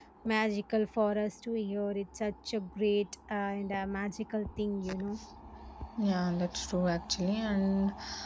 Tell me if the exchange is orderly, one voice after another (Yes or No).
Yes